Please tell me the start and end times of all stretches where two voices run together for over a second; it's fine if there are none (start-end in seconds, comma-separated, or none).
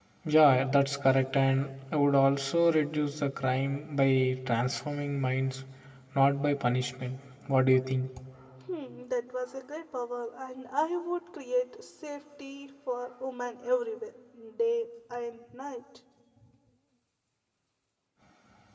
none